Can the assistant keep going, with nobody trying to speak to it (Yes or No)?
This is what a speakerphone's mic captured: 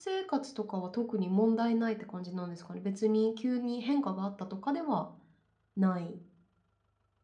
No